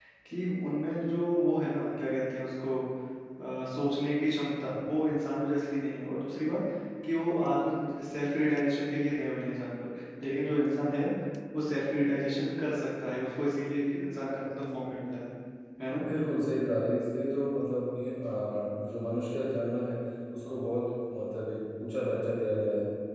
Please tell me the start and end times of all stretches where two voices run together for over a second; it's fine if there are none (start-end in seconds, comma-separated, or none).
none